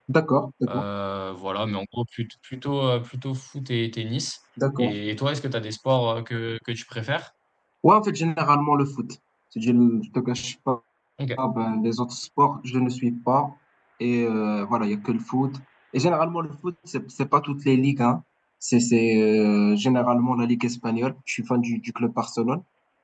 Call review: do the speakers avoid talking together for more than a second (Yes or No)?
Yes